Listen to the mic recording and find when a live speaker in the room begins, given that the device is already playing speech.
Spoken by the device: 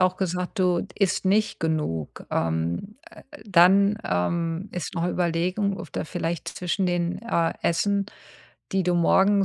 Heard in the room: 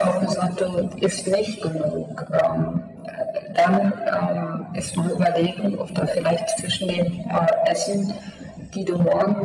none

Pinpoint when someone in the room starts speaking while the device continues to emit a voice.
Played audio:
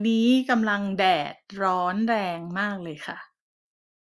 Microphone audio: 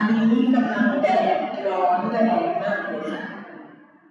none

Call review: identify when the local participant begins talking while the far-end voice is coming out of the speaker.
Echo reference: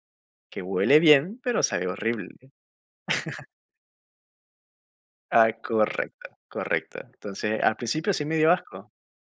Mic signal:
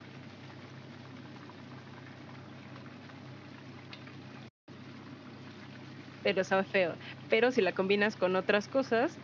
6.2 s

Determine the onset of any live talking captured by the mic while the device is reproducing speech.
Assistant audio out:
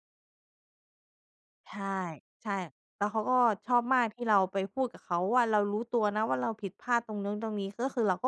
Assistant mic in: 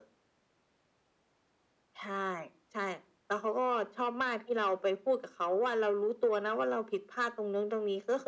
none

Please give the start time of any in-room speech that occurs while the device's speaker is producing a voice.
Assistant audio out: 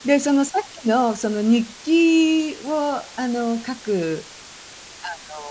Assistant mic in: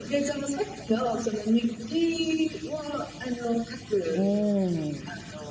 4.1 s

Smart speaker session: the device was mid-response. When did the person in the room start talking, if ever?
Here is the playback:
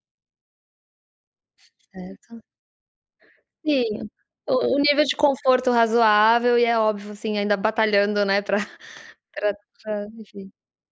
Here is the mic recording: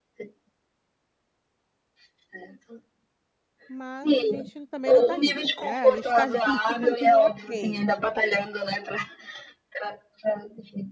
3.7 s

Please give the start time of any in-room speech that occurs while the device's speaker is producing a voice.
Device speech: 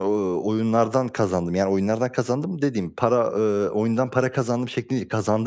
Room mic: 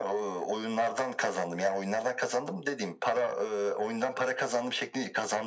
none

